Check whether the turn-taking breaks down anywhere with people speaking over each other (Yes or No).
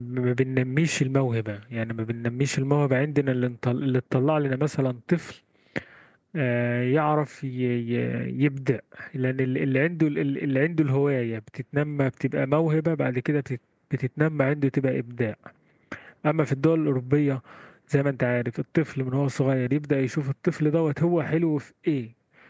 No